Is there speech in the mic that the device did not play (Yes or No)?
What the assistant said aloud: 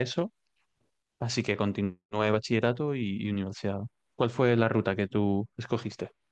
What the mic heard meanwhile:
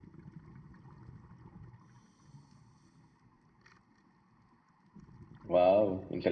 Yes